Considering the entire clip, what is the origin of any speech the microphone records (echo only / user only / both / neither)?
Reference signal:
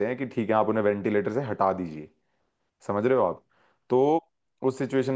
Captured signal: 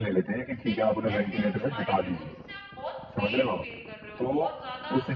both